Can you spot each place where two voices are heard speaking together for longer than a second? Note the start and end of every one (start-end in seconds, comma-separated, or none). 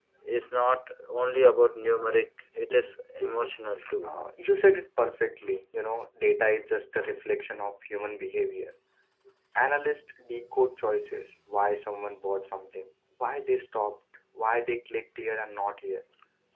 none